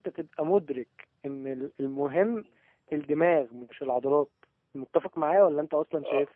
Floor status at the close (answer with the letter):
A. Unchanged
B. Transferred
B